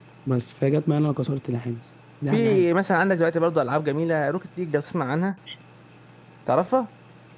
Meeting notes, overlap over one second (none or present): none